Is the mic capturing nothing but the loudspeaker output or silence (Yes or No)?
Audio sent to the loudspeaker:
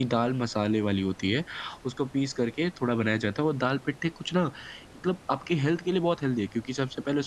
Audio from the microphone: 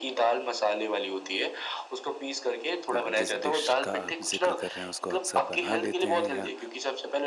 No